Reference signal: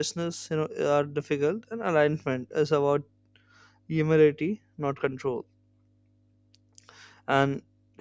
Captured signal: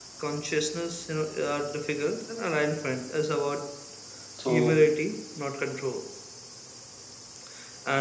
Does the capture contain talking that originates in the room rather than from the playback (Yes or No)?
Yes